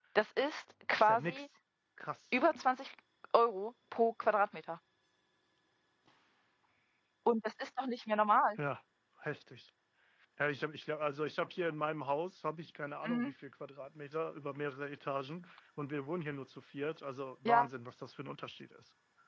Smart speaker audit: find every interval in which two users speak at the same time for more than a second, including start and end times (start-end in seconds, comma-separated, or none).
none